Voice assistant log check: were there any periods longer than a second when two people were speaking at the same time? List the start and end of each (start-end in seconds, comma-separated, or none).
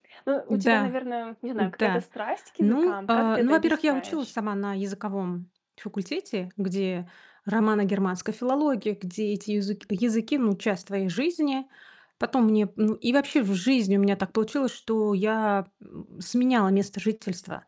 2.6-4.3